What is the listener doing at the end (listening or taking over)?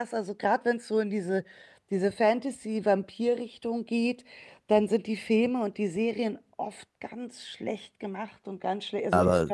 listening